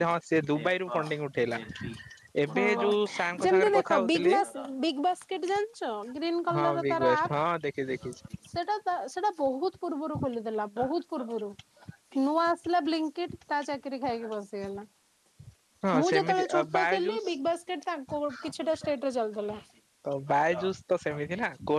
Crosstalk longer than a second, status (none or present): present